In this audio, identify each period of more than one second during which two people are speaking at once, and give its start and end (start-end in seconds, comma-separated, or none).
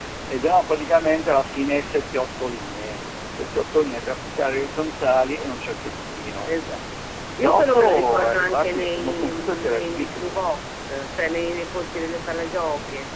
7.4-10.2